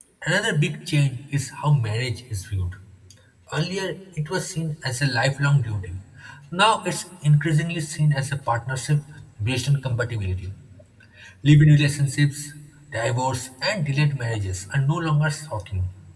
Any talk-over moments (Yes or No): No